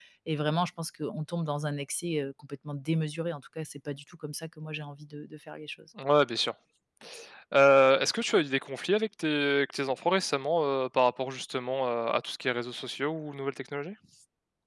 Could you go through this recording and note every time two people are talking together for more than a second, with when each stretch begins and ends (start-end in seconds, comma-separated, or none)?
none